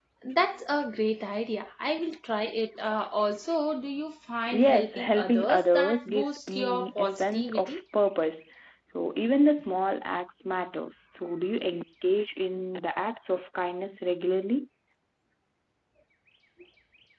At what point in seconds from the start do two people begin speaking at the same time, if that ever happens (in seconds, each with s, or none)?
4.5 s